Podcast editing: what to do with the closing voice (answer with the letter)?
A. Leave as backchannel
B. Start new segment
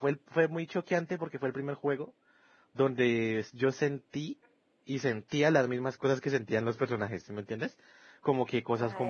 A